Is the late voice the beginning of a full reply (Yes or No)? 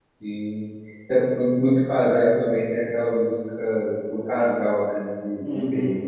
Yes